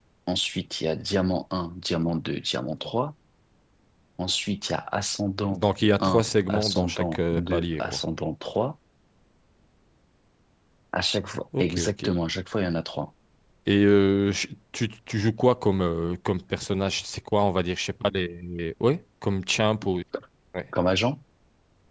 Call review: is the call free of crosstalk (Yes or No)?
No